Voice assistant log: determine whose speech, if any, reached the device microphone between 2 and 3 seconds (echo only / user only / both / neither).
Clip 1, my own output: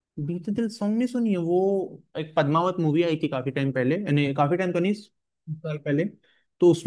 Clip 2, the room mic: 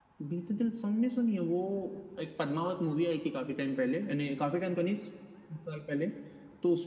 echo only